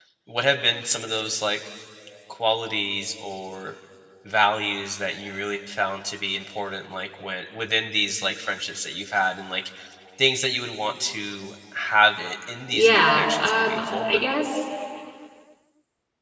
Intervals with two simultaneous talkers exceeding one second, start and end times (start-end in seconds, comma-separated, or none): 12.7-14.2